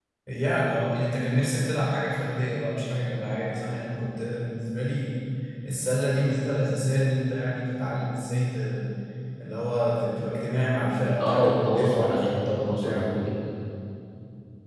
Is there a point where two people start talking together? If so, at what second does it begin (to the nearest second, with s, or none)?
11 s